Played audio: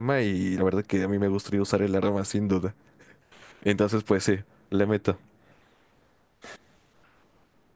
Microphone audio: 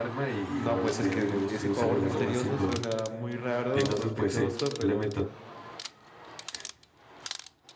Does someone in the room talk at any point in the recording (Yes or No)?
Yes